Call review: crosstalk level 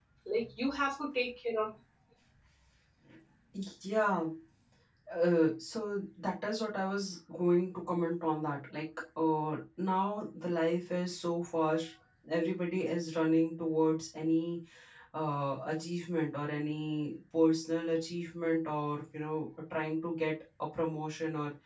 none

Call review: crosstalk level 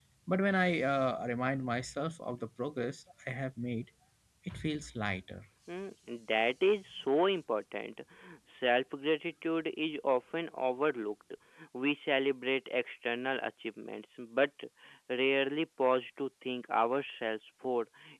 none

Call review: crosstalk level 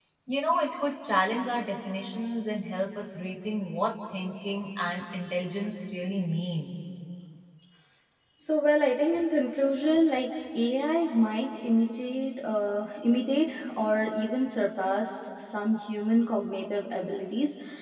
none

